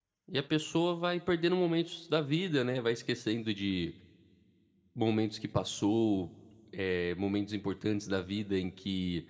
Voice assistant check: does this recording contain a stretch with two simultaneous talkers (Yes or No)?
No